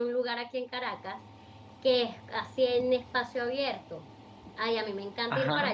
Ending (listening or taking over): listening